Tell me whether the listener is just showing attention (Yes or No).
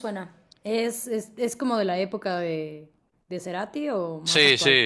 No